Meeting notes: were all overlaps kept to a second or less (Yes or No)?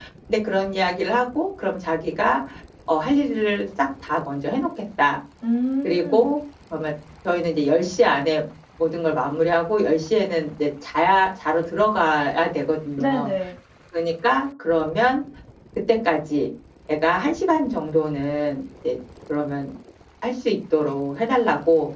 Yes